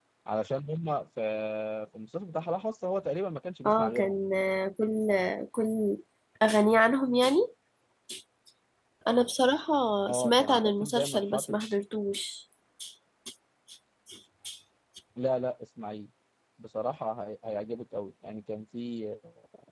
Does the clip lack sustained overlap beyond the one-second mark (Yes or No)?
No